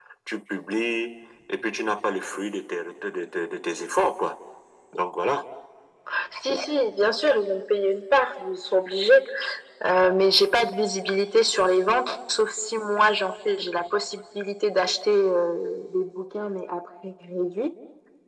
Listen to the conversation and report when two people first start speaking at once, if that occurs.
none

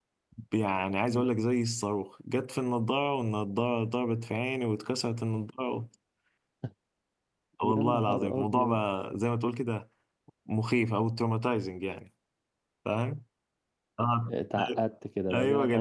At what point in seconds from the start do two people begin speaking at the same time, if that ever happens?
7.6 s

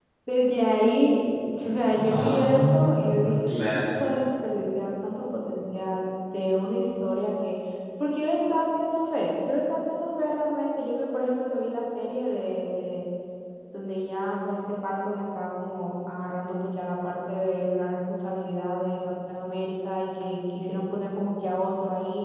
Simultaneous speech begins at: 1.9 s

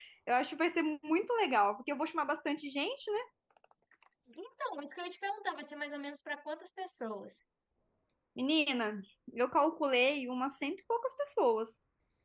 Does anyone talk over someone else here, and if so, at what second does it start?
none

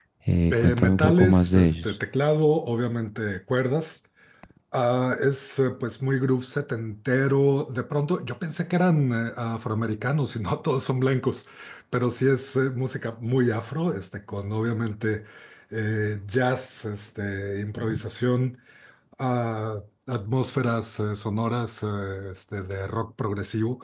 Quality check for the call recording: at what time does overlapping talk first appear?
0.5 s

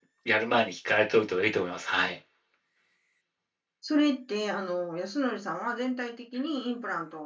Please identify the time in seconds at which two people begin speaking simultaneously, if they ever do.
none

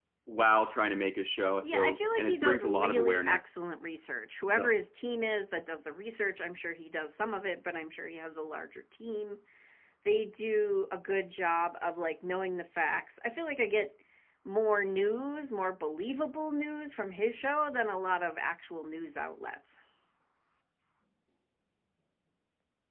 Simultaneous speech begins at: 1.6 s

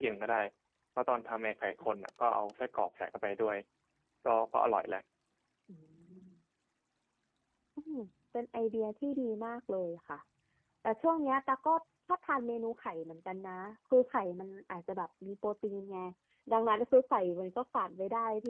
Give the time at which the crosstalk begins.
none

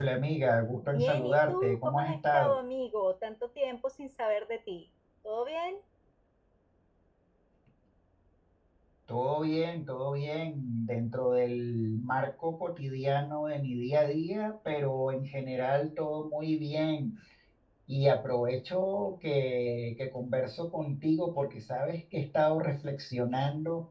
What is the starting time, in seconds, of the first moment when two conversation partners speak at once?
0.9 s

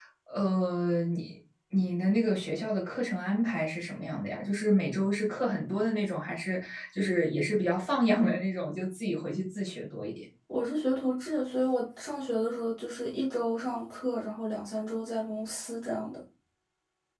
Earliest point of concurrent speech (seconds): none

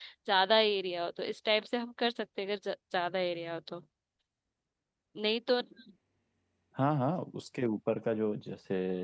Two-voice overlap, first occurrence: none

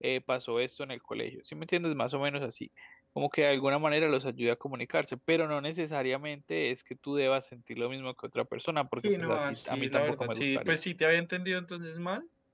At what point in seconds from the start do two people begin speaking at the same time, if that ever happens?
9.0 s

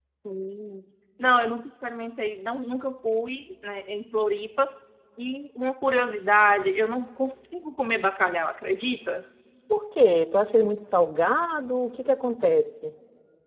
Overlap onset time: none

